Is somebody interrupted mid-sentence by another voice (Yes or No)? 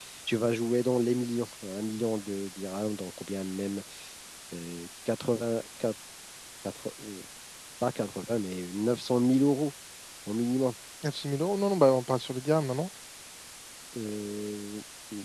No